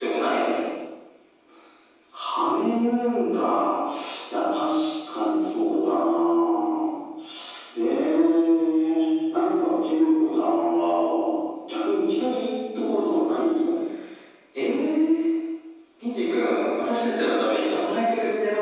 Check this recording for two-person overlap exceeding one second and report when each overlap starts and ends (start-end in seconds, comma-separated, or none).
none